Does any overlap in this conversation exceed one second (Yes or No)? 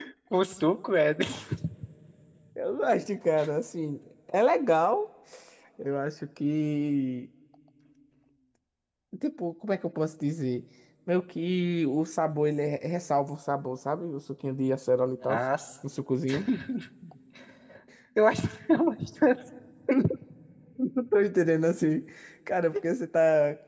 No